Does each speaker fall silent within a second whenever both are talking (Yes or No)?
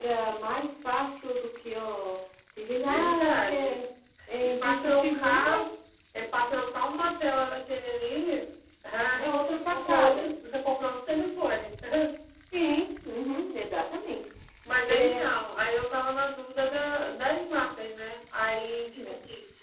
No